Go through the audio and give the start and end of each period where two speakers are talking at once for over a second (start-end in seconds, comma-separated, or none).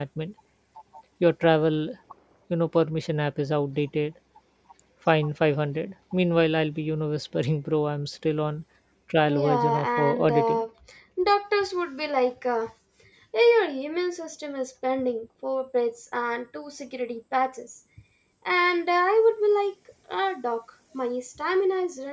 9.2-10.6